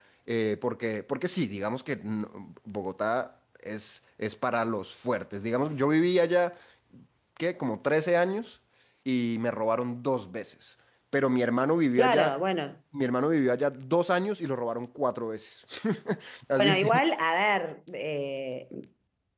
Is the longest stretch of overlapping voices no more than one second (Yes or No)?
Yes